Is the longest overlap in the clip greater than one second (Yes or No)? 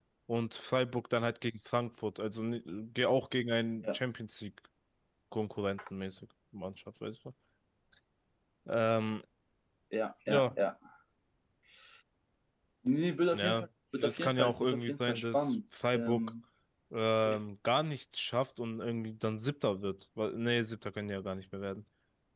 Yes